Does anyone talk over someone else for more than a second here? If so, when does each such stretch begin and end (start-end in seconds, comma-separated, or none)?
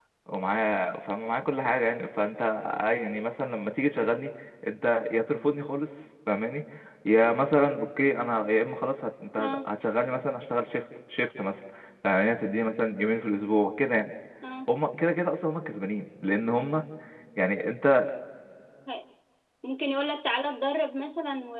none